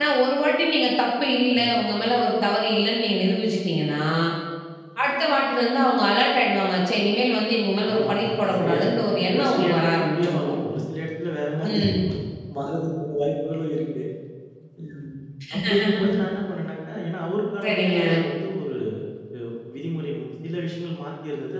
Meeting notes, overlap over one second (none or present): present